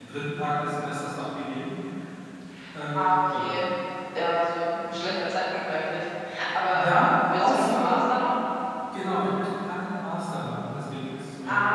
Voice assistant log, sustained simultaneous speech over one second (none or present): present